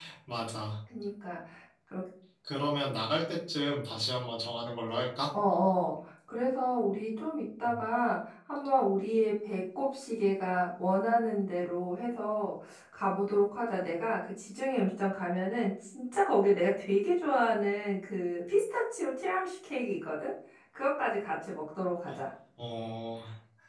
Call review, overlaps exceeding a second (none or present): none